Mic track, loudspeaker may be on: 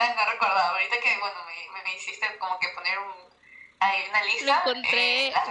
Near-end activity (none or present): present